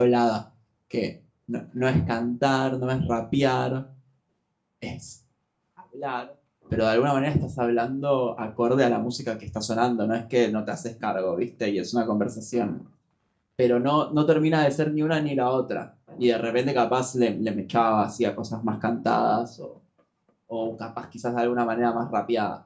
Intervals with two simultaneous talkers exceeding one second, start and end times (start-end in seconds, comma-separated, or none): none